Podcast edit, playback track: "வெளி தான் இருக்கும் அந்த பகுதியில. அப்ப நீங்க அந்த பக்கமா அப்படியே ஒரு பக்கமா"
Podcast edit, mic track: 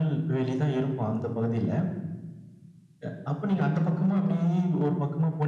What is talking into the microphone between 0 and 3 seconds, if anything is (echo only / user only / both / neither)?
echo only